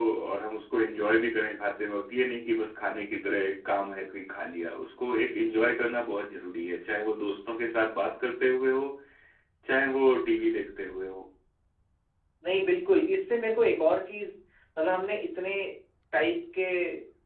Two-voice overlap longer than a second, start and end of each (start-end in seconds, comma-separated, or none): none